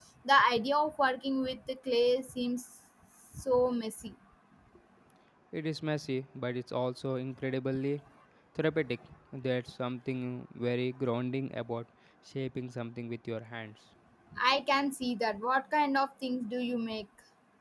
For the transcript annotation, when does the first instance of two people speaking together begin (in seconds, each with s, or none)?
none